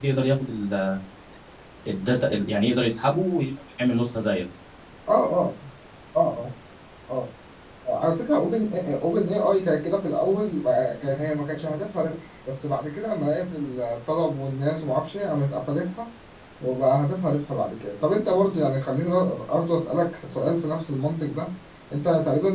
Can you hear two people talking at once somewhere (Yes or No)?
No